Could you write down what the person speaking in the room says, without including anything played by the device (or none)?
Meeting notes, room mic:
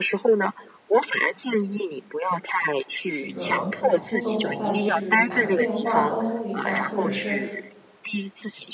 这个工工作伙伴去打个电话沟通一下，或者是